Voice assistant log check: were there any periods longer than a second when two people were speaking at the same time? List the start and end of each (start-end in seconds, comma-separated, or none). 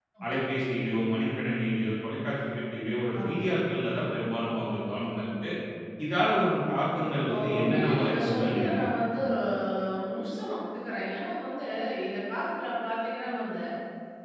7.3-8.8